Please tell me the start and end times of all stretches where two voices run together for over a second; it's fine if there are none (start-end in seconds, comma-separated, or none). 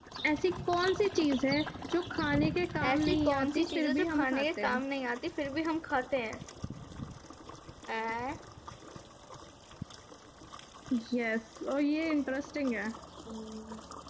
2.8-4.8